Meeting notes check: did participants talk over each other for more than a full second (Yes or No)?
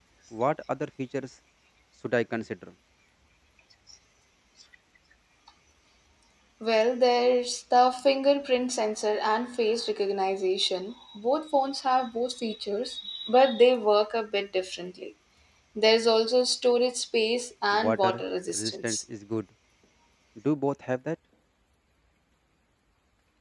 Yes